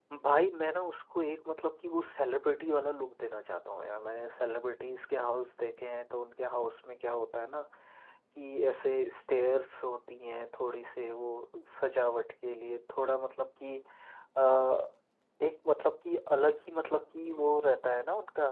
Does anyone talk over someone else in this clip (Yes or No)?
No